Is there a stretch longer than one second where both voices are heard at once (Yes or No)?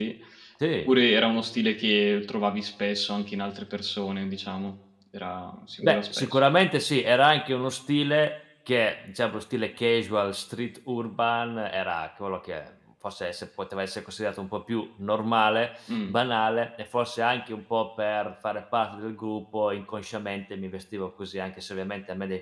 No